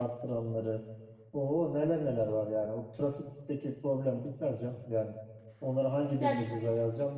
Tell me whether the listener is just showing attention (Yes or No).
Yes